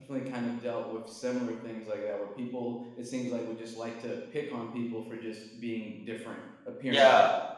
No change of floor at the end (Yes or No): No